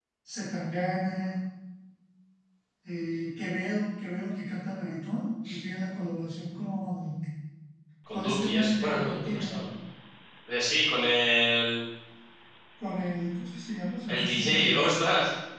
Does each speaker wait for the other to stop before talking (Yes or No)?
No